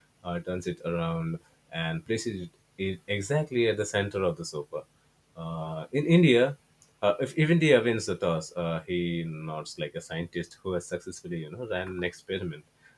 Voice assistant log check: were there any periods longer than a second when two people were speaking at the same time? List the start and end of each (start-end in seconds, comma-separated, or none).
none